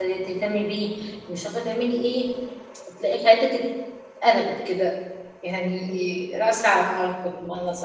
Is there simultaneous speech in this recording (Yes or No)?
No